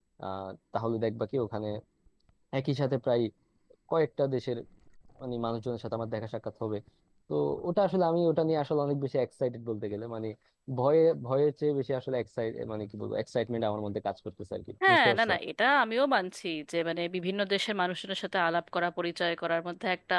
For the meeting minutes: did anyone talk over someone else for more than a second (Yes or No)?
No